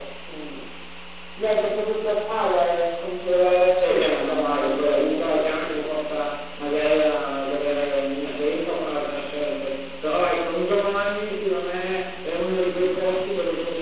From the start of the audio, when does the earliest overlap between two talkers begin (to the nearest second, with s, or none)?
4 s